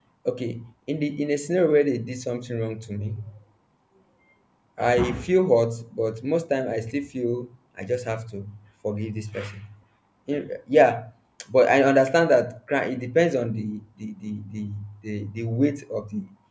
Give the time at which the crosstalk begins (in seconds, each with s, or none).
none